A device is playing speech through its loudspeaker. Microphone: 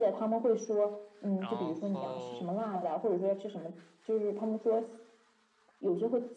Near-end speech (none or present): present